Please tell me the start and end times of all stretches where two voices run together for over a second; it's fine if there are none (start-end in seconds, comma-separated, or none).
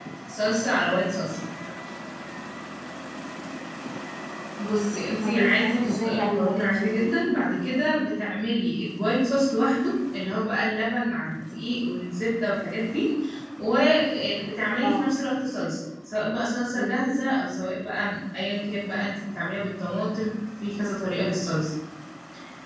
5.2-7.2